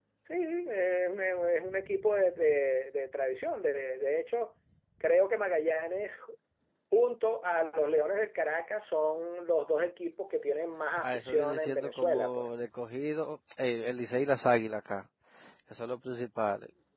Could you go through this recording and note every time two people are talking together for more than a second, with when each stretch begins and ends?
11.0-12.5

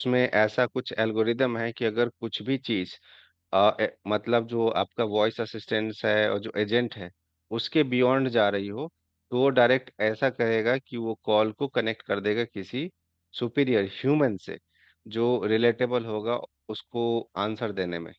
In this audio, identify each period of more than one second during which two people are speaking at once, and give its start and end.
none

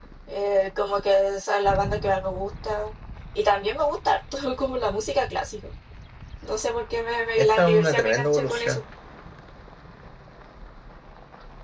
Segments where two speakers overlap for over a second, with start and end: 7.4-8.8

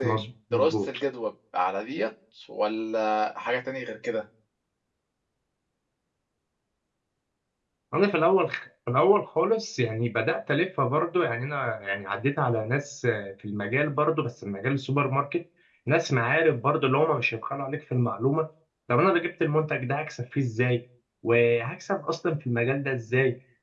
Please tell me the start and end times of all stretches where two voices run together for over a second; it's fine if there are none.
none

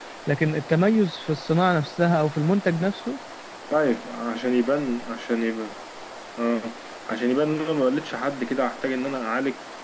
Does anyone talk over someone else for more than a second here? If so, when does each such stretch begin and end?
none

